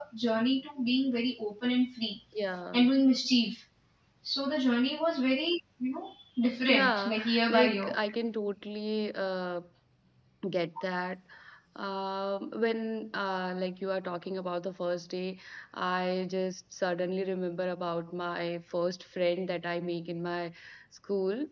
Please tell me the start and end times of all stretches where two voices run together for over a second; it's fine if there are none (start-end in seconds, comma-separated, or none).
6.7-8.0